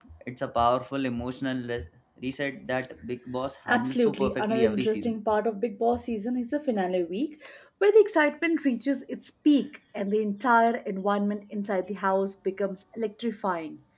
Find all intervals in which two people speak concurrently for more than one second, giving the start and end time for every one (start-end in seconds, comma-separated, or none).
3.7-5.1